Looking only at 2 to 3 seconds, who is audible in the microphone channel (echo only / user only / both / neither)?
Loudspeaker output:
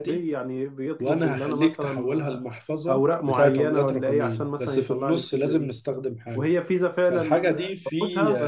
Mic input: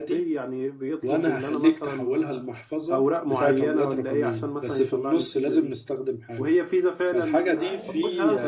echo only